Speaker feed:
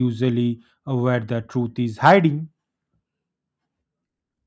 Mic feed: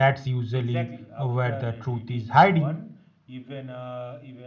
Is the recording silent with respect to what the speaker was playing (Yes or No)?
No